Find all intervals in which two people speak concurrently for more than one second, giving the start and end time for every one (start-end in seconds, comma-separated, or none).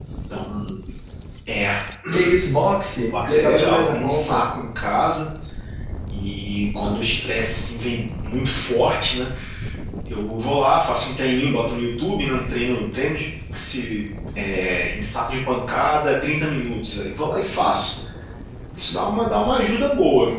3.1-4.4